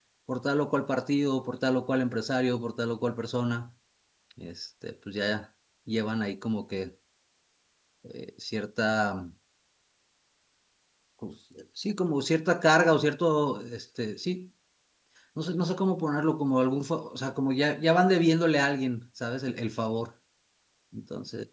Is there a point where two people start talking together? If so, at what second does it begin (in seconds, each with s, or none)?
none